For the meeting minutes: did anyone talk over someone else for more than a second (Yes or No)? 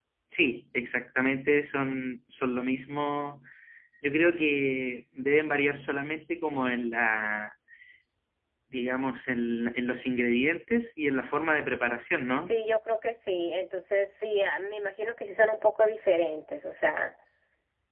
No